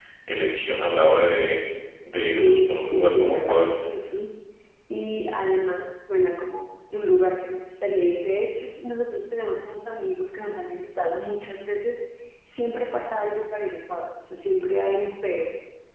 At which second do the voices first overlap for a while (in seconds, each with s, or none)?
2.4 s